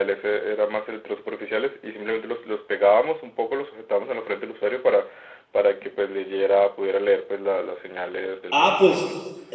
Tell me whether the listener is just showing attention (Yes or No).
No